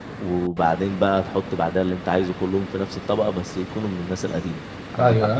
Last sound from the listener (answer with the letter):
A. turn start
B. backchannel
A